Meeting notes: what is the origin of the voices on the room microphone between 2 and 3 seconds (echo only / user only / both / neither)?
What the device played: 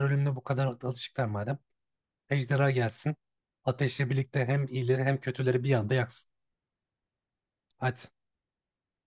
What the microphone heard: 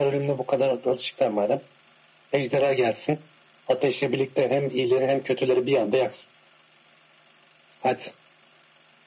echo only